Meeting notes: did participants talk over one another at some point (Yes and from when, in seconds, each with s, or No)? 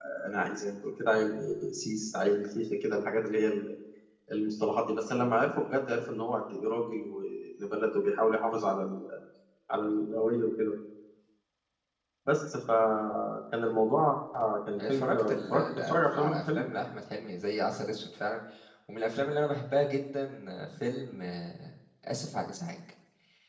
Yes, from 14.8 s